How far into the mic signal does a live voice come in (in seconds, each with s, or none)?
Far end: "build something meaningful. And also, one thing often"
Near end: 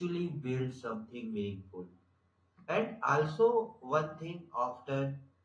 none